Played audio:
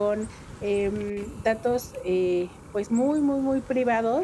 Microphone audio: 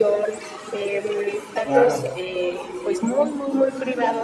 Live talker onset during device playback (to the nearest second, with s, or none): 2 s